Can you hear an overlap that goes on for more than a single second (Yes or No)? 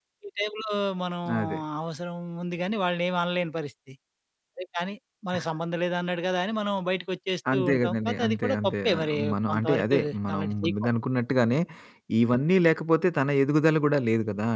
Yes